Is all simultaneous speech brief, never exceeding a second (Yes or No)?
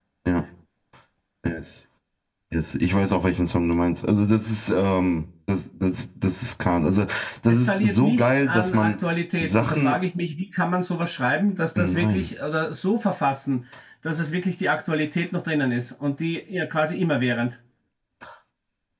No